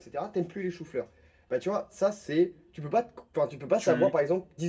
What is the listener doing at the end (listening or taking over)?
listening